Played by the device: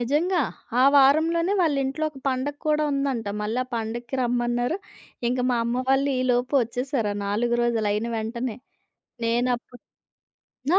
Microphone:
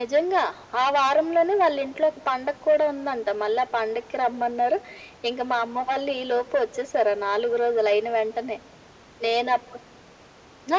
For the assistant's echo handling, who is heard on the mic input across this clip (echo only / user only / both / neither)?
echo only